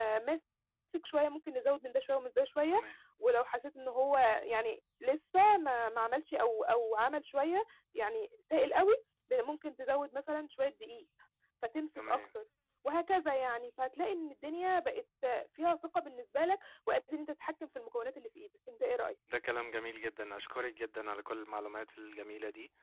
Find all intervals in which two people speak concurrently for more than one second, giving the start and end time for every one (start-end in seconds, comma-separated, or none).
none